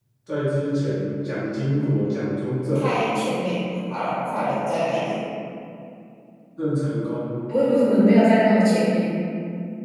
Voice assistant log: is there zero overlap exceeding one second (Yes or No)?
Yes